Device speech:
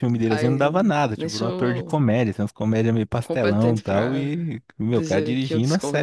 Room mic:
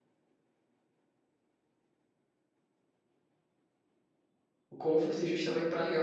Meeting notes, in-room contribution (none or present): present